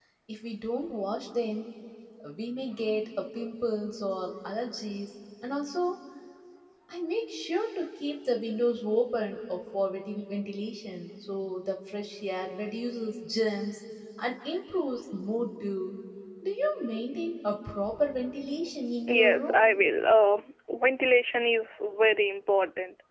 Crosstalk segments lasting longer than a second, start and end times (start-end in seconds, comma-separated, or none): none